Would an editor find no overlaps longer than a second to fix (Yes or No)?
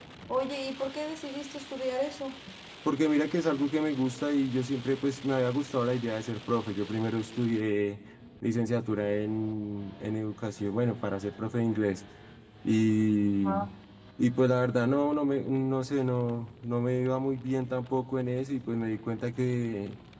Yes